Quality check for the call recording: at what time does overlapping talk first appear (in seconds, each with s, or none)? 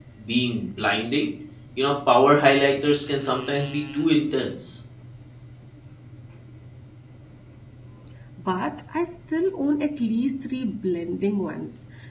none